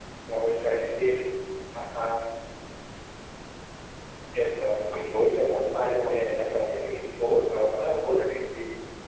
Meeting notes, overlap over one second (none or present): present